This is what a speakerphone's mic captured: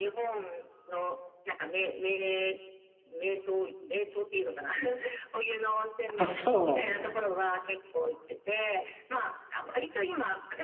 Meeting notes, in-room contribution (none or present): present